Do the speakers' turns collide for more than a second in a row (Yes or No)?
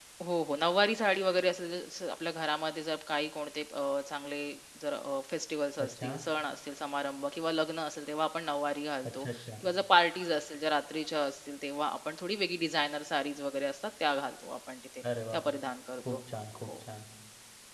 No